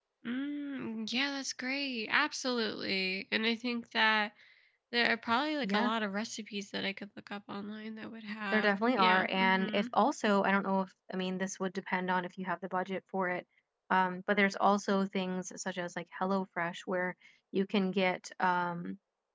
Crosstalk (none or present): present